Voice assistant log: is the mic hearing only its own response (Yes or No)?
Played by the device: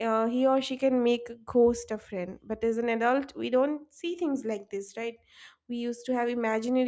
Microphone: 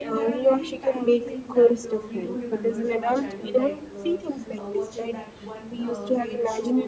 No